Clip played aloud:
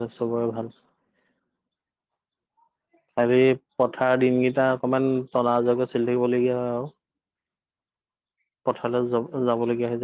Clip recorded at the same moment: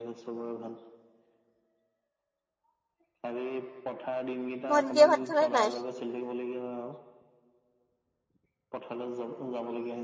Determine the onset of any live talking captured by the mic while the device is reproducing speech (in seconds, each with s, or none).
4.7 s